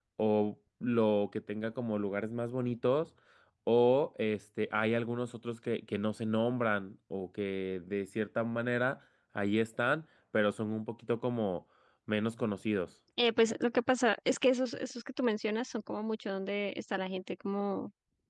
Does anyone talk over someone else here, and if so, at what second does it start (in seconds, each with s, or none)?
none